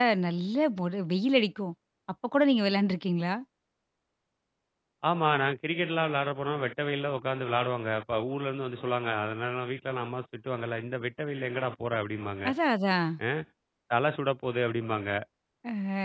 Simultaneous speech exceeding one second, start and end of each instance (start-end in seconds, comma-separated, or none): none